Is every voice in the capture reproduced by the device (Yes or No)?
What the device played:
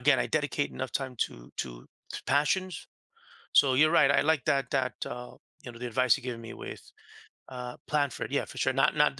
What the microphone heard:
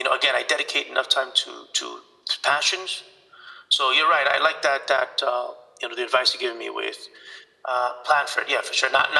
Yes